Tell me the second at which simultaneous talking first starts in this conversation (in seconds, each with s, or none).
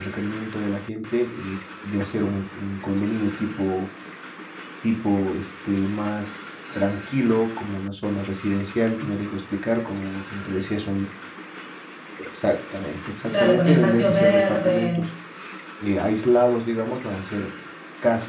13.3 s